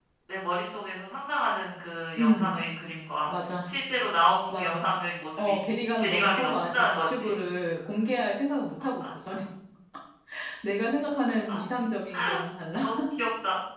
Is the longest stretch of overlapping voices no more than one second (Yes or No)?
No